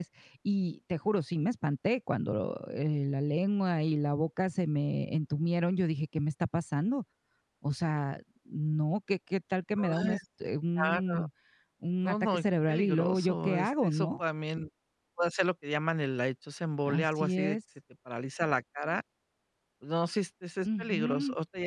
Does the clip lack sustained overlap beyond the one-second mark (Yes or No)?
No